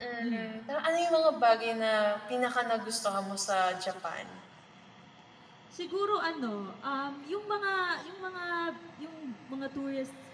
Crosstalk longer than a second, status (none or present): none